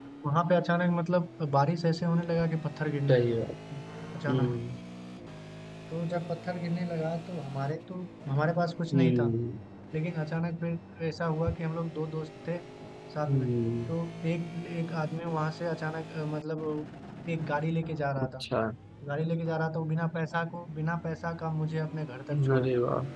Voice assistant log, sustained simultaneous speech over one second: none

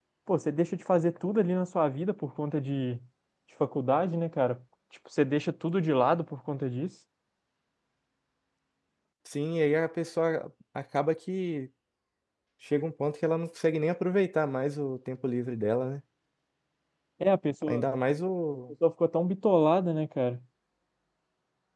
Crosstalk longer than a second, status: none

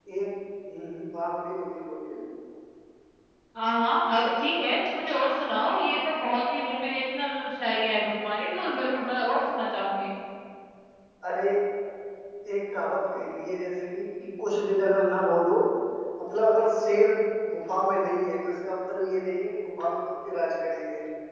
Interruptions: none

